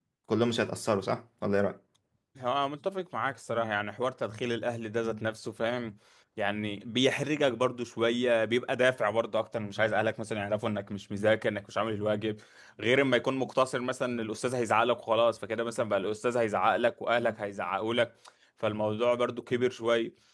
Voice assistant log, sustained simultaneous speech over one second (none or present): none